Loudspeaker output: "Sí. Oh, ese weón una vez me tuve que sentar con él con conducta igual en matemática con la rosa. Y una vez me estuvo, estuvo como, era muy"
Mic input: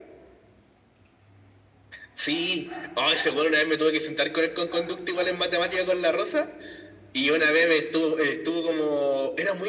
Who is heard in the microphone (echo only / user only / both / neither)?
echo only